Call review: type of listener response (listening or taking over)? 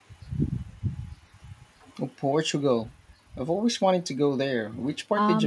taking over